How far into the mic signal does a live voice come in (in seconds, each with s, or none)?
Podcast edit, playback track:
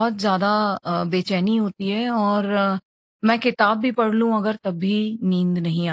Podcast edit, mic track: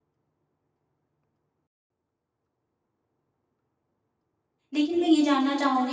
4.7 s